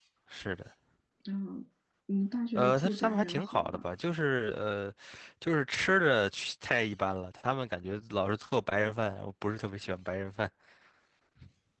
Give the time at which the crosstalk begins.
2.5 s

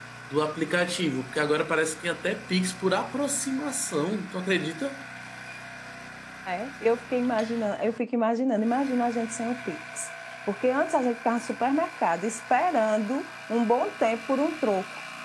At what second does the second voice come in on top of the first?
none

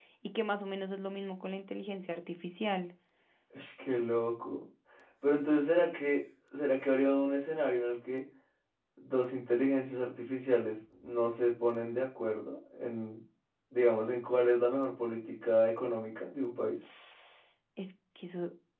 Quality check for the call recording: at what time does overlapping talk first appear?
none

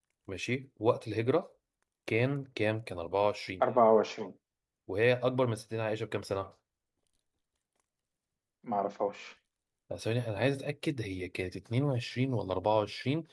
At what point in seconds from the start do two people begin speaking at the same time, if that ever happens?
none

